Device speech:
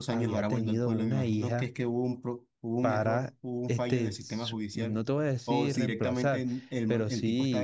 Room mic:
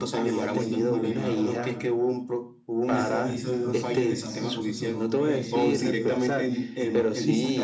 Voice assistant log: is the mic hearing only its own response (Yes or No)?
No